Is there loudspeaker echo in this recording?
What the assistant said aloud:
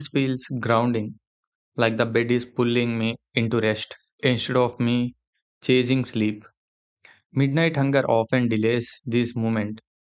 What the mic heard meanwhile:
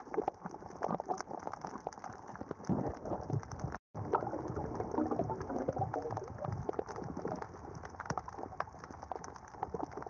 No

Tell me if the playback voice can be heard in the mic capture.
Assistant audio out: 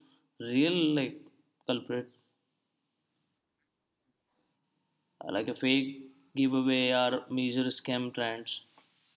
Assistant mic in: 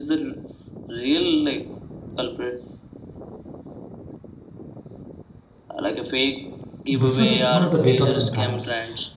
Yes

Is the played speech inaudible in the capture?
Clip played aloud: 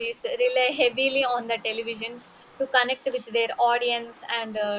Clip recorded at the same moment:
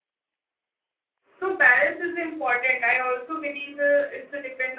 Yes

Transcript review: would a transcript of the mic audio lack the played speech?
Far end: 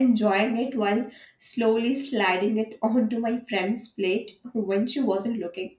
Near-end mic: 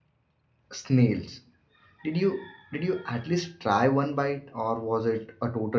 Yes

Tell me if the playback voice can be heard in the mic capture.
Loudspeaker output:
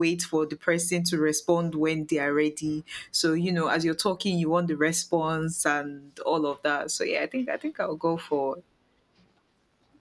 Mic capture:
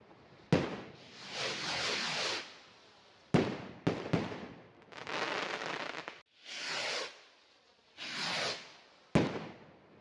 No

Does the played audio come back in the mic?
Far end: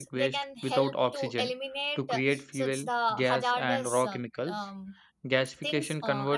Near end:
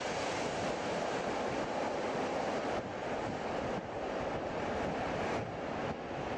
No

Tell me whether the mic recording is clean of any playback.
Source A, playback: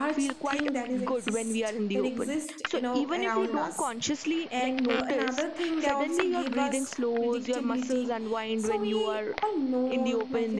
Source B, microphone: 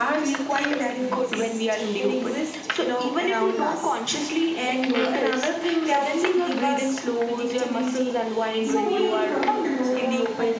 No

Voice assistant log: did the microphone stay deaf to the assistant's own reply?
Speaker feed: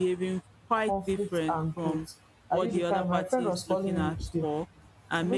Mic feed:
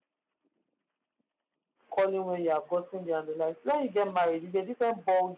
Yes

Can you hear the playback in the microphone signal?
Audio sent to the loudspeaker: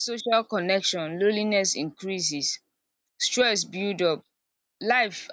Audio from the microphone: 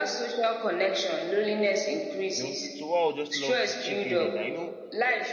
Yes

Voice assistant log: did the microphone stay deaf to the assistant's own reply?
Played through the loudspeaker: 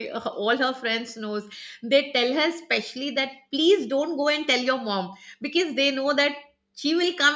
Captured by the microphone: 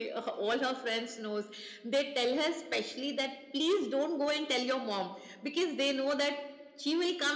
No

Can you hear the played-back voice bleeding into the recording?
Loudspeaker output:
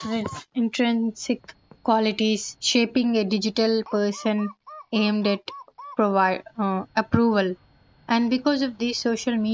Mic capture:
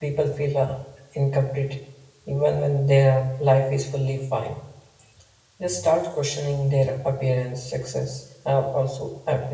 No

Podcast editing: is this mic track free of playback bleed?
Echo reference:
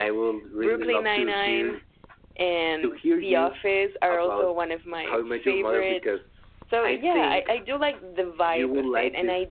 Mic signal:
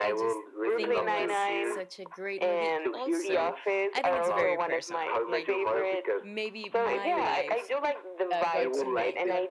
No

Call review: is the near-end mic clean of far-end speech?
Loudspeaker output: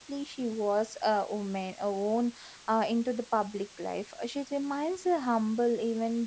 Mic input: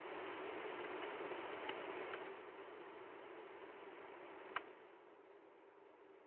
Yes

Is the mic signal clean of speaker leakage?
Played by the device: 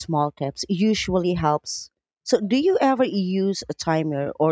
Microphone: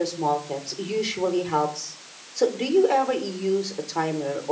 No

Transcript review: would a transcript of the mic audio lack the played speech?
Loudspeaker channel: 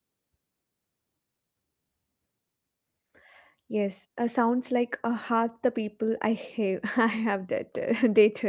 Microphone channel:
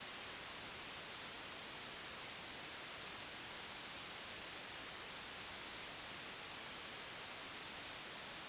Yes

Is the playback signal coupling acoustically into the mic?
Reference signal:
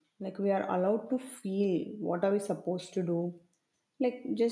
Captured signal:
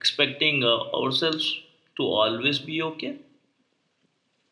No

